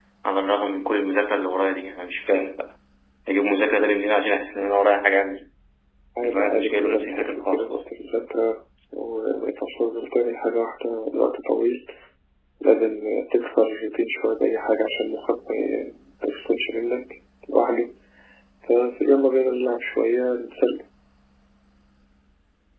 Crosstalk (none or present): present